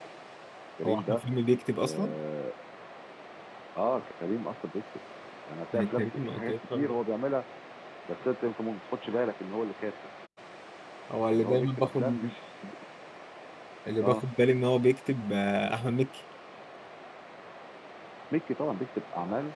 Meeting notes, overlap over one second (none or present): present